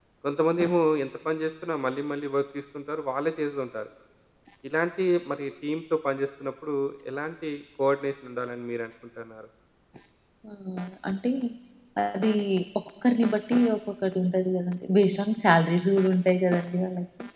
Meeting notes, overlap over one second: none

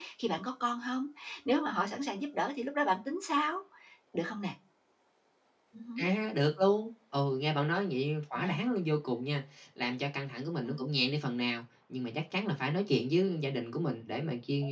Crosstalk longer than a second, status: none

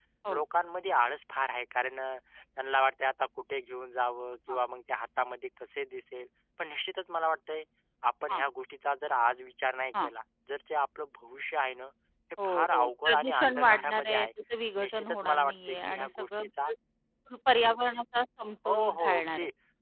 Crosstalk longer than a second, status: present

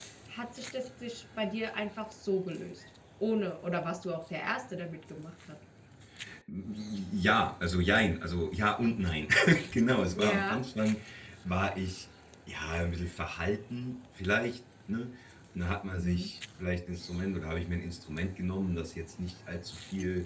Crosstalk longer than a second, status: none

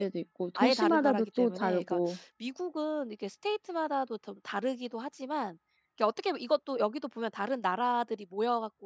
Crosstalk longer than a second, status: present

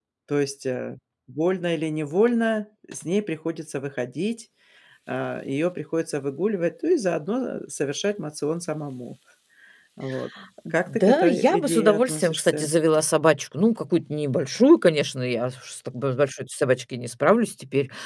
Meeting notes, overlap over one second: present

